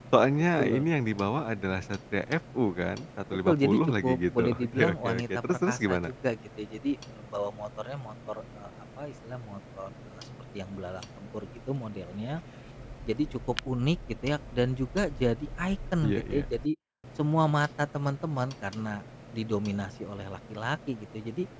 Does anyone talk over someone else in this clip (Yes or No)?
Yes